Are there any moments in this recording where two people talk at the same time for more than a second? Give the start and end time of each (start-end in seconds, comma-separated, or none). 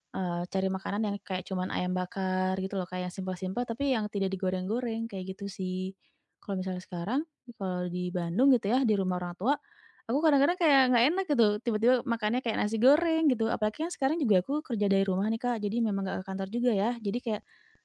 none